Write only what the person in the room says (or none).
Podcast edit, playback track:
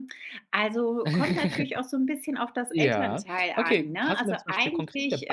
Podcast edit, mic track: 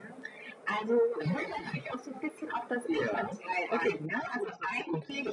none